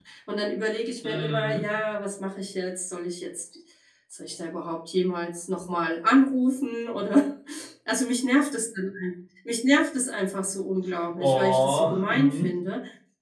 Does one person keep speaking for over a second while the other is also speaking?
Yes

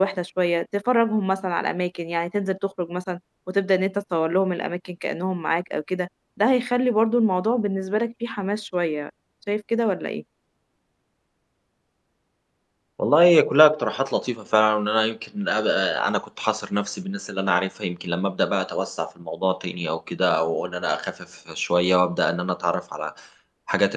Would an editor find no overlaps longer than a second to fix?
Yes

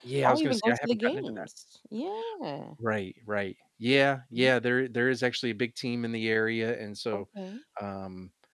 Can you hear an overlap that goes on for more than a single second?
Yes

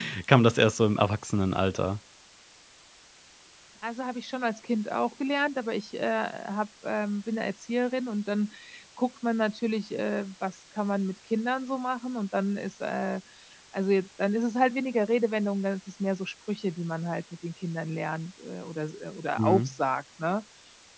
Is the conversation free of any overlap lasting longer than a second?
Yes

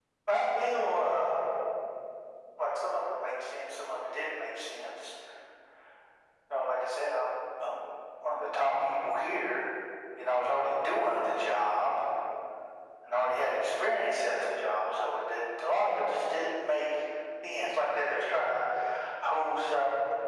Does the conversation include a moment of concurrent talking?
No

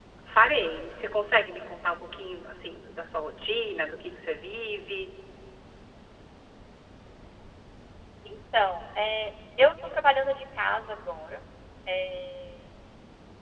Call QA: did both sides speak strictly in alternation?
Yes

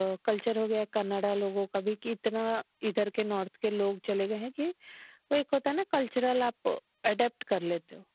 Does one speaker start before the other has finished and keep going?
No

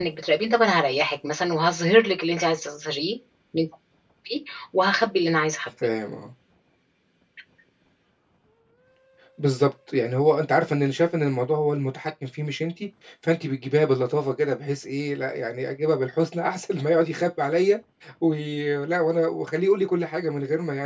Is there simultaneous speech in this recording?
No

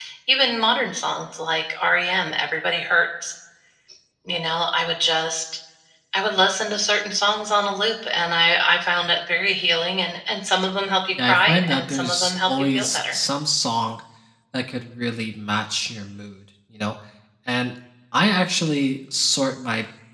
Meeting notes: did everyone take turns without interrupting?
No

